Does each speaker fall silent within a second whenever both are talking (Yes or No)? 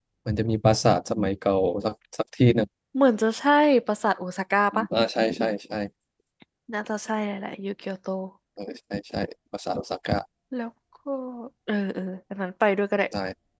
Yes